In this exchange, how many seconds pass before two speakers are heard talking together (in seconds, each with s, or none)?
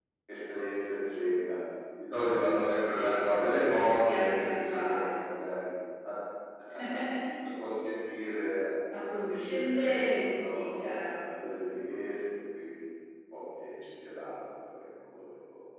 2.8 s